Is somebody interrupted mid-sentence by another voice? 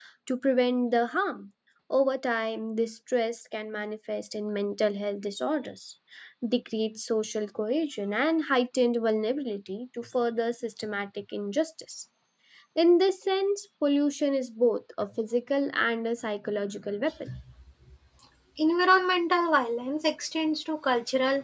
No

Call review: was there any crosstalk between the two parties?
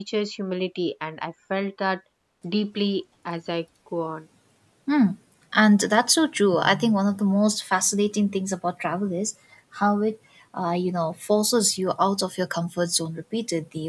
No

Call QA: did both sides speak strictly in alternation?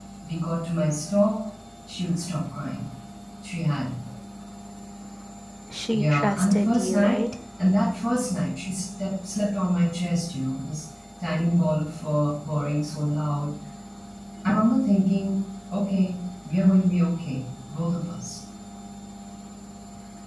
No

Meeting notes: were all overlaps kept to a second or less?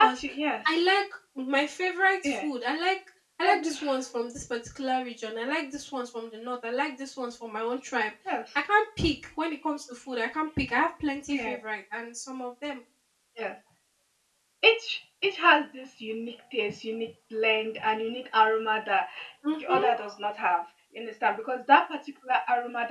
Yes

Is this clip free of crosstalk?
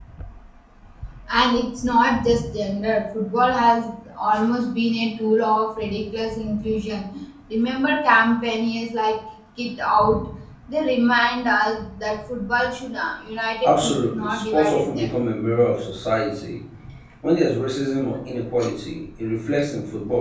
No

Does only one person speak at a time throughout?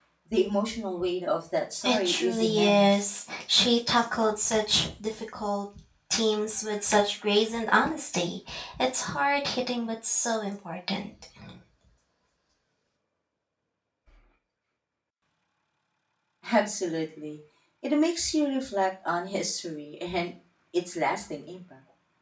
No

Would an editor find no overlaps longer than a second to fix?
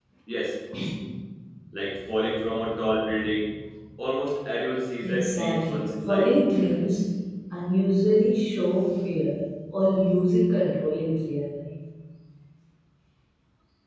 No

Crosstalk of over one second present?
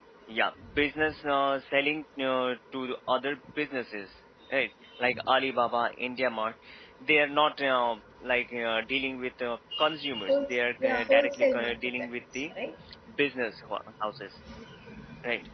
Yes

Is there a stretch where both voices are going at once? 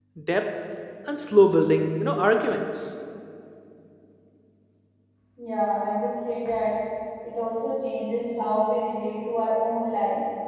No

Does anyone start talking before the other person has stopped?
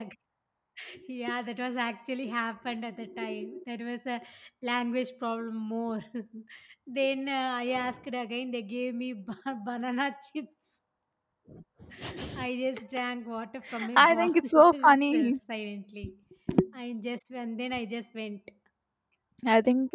Yes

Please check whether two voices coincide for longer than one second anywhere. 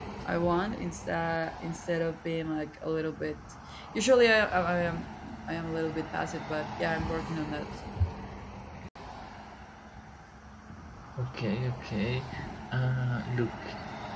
No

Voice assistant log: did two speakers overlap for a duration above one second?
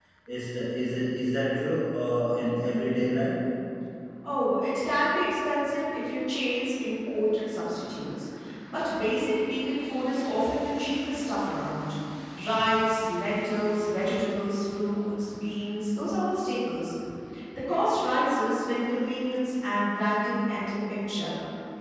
No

